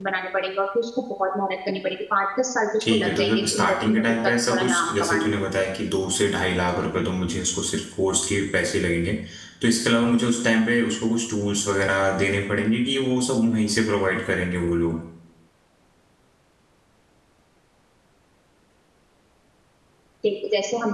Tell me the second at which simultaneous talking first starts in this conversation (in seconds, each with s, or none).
2.8 s